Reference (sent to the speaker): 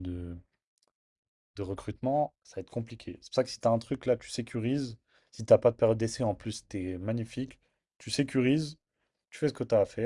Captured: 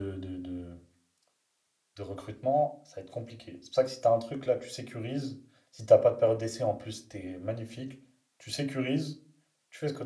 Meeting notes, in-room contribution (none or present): none